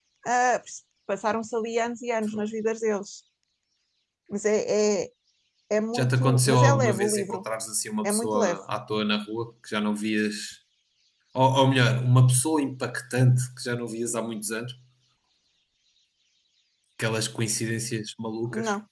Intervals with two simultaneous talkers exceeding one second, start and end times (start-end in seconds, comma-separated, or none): 6.0-7.4